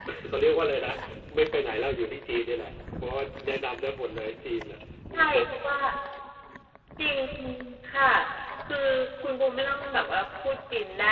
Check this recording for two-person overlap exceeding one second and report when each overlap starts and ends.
none

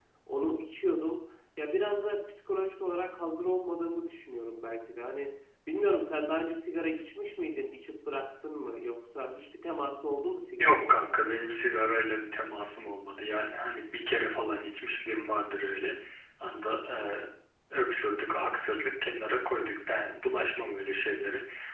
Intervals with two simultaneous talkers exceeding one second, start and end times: none

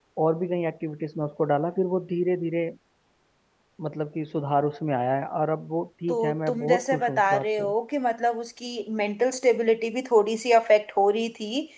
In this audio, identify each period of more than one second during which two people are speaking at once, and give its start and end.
6.1-7.7

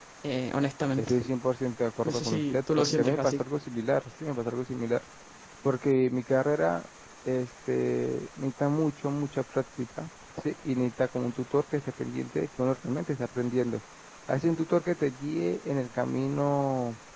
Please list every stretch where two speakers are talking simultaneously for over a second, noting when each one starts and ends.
2.0-3.4

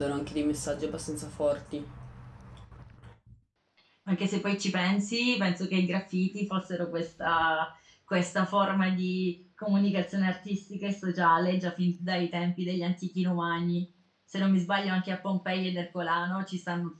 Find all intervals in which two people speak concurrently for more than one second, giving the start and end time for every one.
none

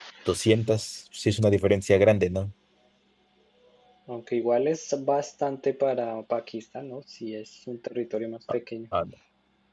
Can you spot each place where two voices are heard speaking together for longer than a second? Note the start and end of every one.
none

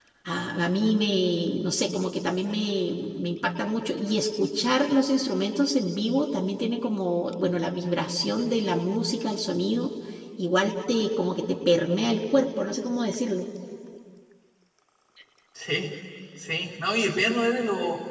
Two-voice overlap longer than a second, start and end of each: none

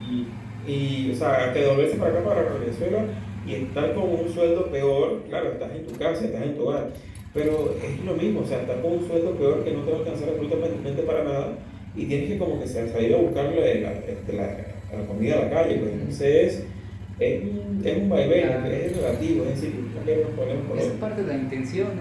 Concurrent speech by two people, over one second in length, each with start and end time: none

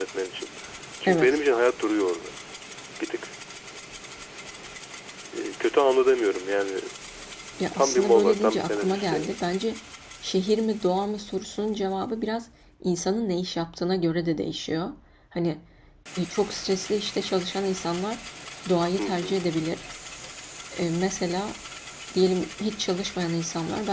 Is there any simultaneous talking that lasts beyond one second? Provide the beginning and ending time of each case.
7.7-9.3

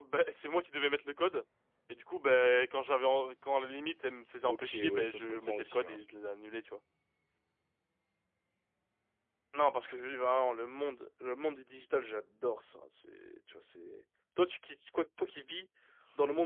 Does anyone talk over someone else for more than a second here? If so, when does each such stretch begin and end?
4.5-6.0

